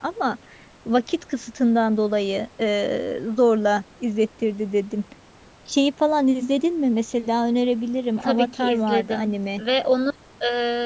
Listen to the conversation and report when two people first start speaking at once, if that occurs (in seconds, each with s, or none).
8.2 s